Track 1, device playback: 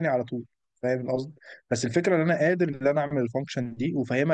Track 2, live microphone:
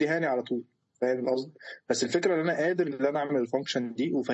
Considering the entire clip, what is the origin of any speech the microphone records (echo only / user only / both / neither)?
echo only